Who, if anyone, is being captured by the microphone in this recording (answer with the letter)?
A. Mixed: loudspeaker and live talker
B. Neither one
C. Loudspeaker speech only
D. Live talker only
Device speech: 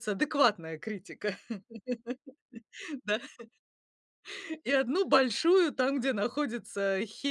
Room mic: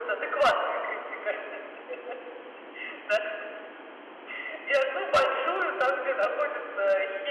C